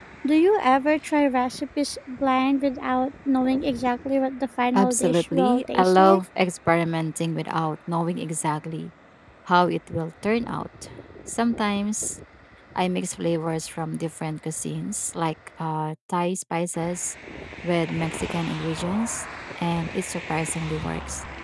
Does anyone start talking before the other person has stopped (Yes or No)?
Yes